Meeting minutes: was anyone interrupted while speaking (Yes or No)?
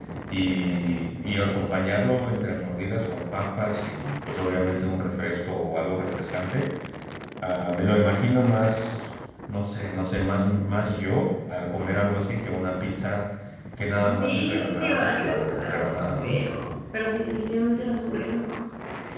Yes